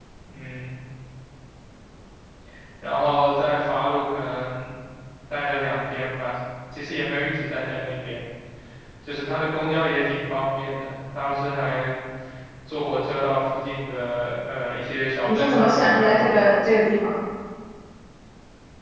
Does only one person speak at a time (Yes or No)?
No